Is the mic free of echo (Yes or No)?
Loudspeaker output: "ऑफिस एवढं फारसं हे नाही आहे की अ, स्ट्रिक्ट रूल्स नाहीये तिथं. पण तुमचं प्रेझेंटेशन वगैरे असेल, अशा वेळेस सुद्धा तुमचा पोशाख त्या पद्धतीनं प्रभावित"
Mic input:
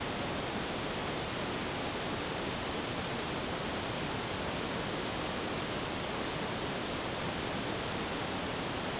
Yes